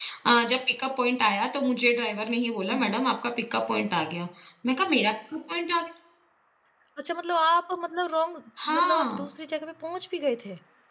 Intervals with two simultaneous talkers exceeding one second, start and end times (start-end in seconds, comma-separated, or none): none